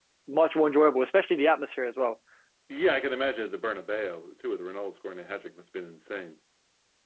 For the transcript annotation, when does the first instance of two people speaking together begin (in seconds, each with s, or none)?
none